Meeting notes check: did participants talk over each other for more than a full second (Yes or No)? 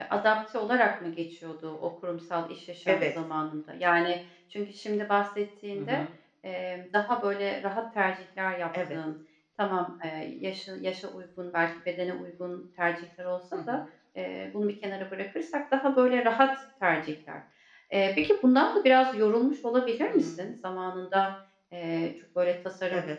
No